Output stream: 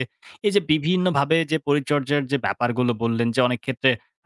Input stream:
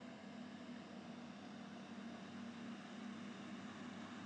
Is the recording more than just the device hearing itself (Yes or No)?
No